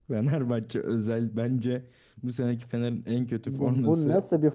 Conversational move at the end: taking over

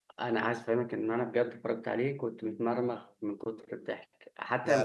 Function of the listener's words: listening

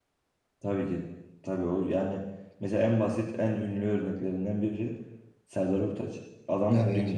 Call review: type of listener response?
listening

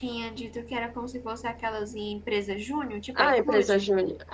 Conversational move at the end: taking over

